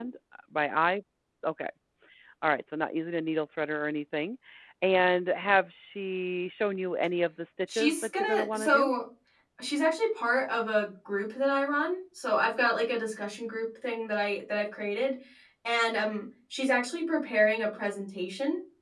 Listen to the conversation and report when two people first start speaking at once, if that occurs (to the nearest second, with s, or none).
8 s